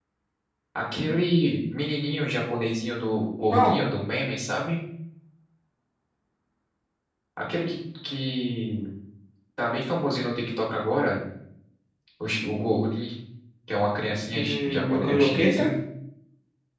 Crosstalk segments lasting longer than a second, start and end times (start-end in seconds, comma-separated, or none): 14.4-15.7